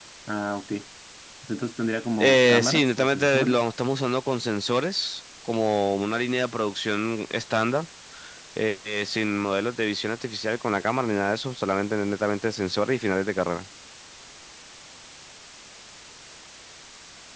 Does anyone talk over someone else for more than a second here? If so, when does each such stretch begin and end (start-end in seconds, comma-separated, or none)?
2.2-3.6